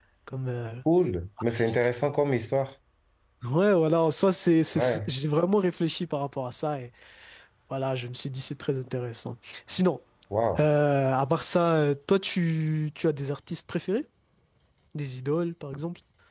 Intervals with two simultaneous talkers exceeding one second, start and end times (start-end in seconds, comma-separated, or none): none